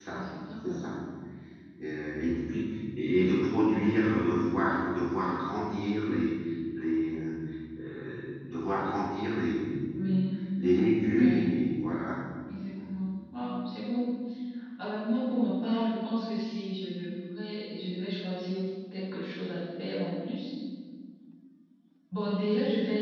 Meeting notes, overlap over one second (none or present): none